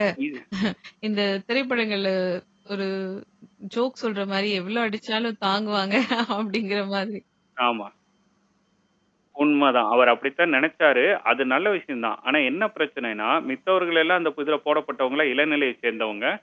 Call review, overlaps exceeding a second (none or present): none